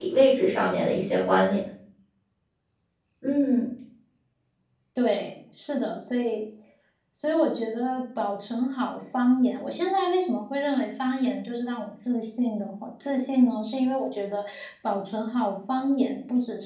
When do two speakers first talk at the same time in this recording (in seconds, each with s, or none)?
none